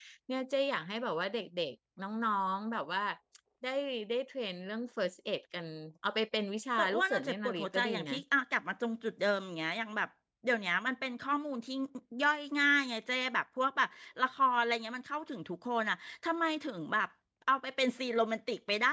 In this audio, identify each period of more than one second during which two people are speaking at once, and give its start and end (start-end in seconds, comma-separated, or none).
6.8-8.1